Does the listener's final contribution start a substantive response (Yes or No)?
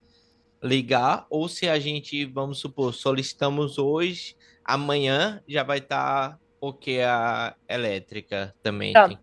Yes